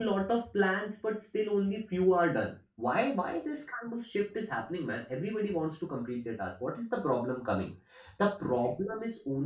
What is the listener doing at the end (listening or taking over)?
listening